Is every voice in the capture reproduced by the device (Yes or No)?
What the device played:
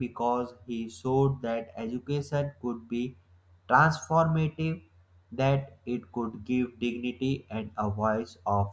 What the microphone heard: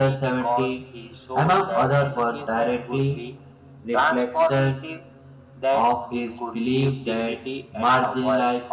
No